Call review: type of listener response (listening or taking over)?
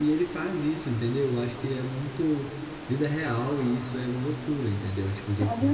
taking over